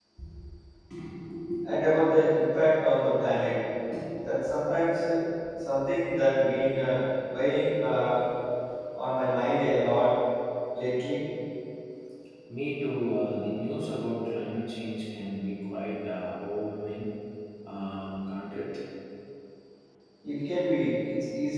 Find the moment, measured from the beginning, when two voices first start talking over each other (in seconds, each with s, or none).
none